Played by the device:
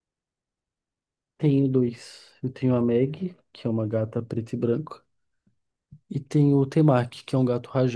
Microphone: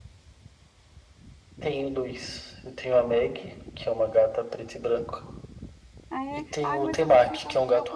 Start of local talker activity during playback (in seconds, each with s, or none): 6.1 s